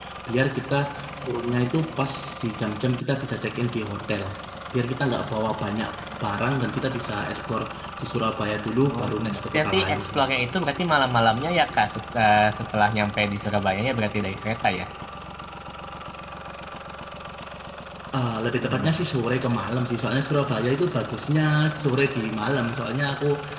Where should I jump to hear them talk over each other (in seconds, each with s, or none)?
8.9 s